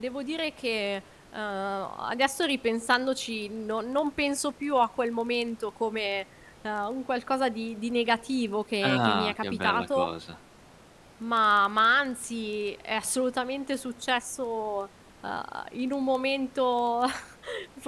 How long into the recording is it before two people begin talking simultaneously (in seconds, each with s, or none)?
8.8 s